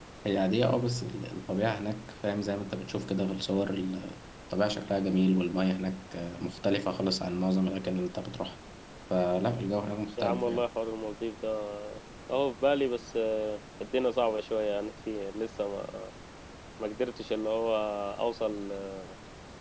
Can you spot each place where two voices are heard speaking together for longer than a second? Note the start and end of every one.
none

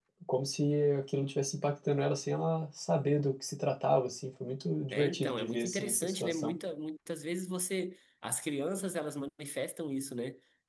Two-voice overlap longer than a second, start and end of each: 4.9-6.5

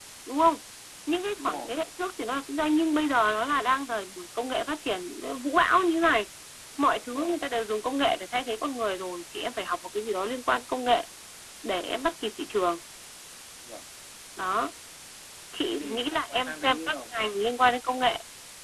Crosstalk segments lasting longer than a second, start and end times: 15.7-16.9

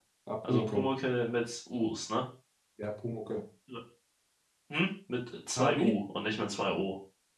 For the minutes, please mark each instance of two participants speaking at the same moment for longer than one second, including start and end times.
none

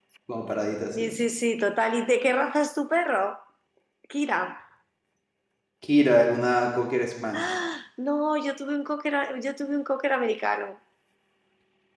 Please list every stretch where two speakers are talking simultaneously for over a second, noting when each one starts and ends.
none

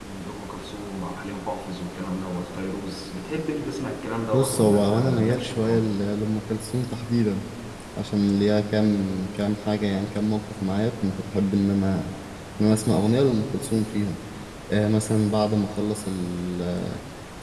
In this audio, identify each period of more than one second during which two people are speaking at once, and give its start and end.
4.3-6.0

